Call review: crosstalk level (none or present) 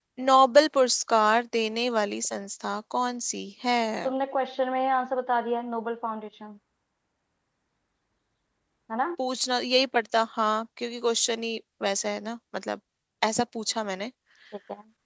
none